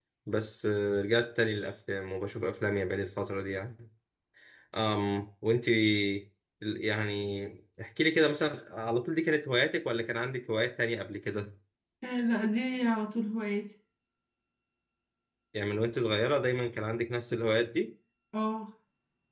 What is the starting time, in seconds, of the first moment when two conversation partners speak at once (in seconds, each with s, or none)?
none